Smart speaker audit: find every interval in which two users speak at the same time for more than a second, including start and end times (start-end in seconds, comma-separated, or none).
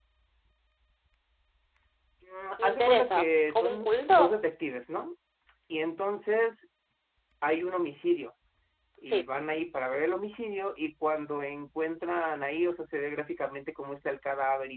2.6-4.4